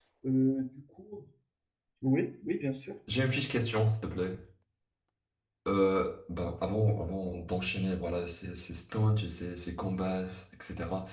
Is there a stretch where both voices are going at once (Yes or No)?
No